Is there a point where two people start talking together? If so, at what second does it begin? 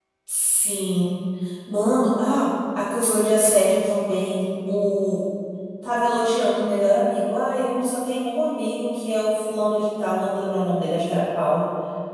none

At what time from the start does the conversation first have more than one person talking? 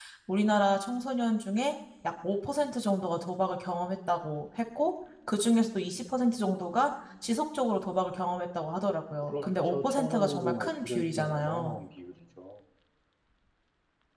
9 s

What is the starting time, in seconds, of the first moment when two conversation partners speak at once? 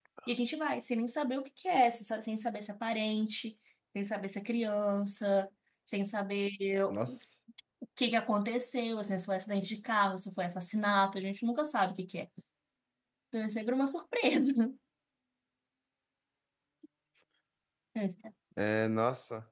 none

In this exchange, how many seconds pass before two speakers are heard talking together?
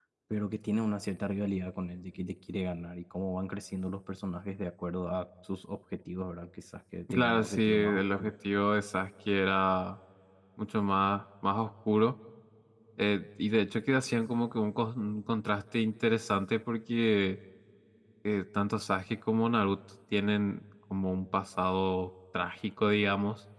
7 s

